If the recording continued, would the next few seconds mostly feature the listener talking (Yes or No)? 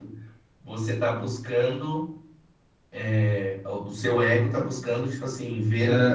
No